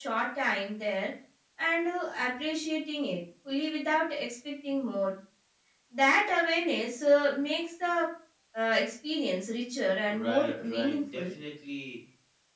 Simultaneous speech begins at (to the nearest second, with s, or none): 10 s